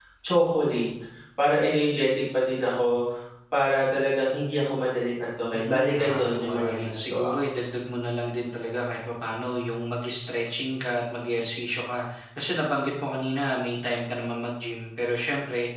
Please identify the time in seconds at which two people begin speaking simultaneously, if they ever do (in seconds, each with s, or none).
5.5 s